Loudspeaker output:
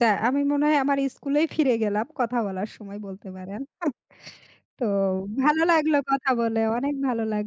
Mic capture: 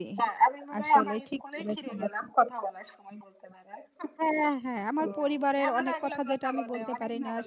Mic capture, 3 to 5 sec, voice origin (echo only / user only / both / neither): both